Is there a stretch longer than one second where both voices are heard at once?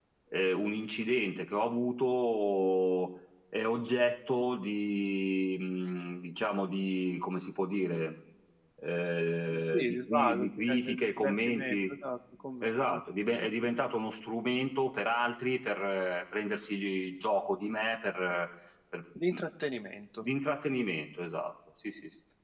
Yes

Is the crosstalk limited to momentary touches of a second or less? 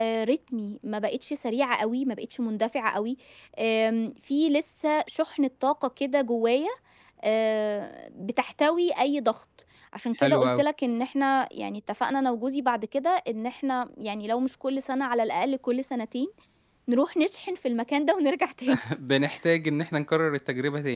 Yes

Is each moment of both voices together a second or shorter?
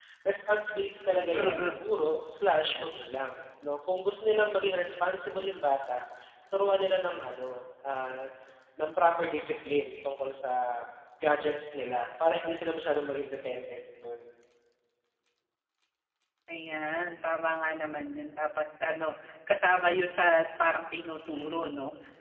Yes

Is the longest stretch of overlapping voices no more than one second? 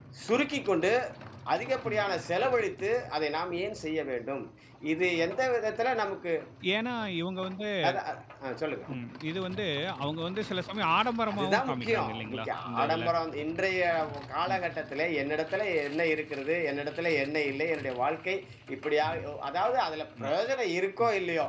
No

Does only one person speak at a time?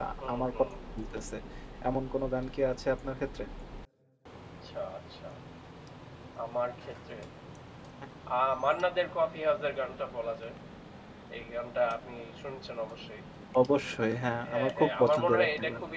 No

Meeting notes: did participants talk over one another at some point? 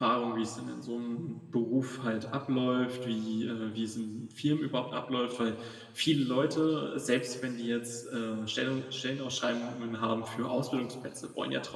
No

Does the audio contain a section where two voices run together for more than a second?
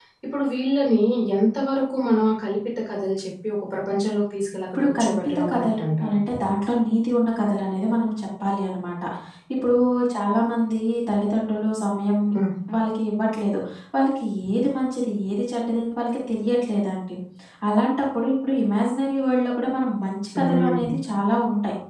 Yes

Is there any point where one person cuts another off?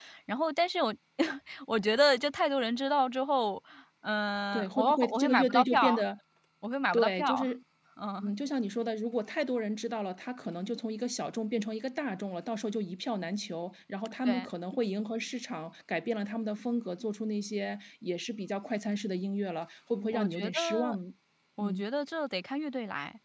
Yes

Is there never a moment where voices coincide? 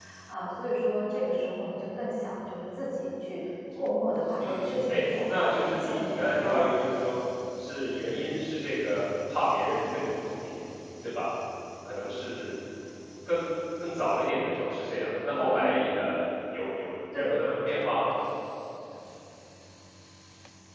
No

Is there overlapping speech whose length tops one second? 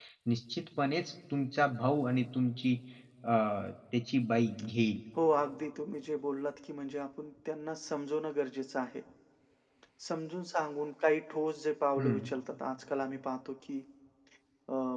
No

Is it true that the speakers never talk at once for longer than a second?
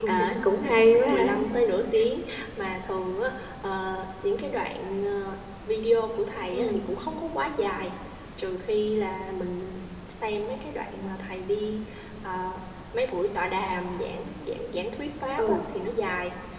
Yes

